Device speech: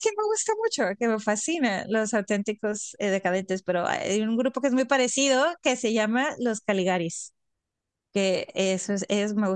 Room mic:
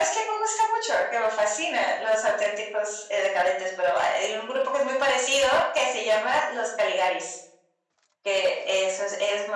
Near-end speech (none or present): none